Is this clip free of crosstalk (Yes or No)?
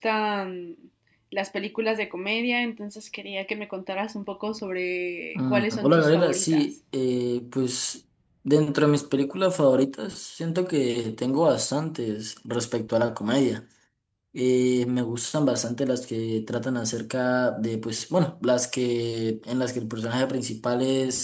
No